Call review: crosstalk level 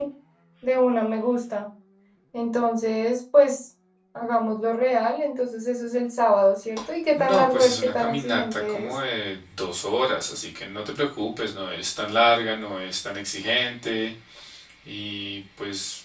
present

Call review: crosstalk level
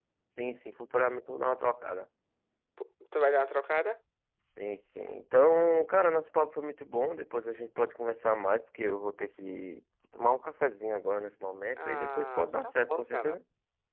present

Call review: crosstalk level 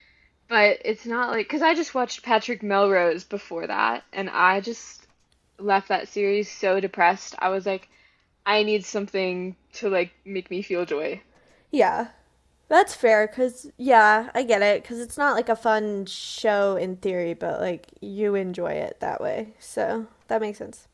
none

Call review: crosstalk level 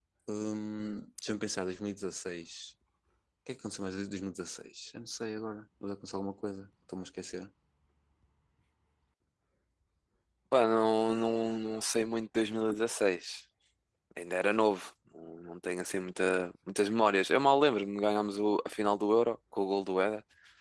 none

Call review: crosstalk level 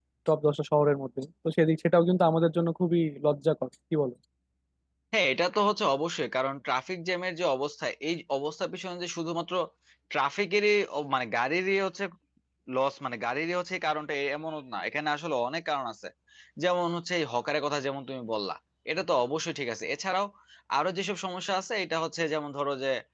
none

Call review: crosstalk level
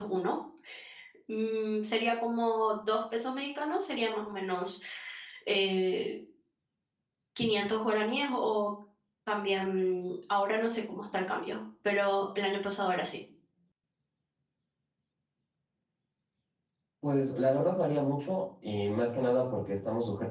none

